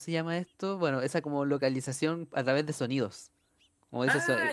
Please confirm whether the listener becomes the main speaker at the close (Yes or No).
No